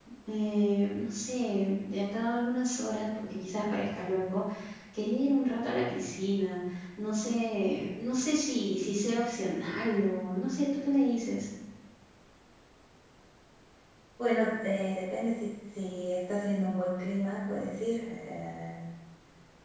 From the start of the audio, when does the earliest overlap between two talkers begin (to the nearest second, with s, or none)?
none